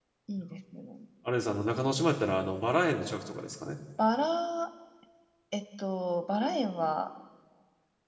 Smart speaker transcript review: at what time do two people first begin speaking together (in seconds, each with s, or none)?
none